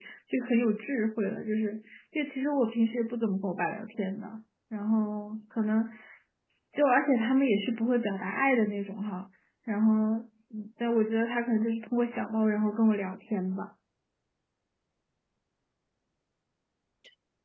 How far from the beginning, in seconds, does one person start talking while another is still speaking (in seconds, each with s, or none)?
none